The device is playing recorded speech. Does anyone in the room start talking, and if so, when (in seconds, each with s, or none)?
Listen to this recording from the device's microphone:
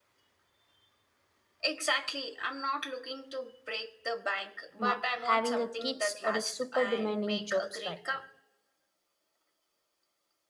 4.8 s